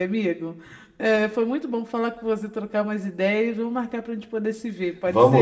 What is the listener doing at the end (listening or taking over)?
taking over